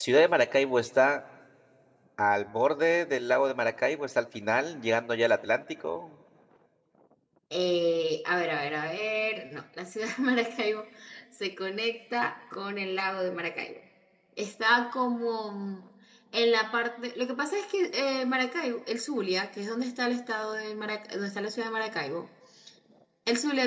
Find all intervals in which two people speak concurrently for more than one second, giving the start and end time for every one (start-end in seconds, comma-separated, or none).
none